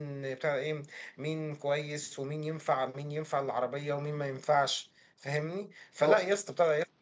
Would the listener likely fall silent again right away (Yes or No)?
Yes